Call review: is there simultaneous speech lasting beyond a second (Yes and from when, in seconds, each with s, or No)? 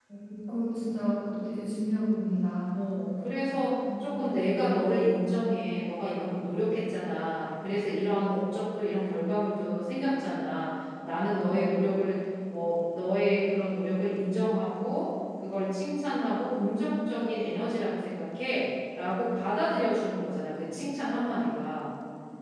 No